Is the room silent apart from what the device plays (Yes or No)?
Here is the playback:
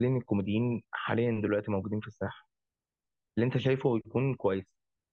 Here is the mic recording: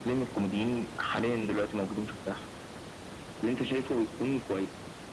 Yes